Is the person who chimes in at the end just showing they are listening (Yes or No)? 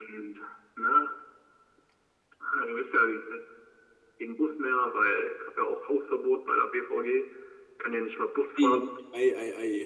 No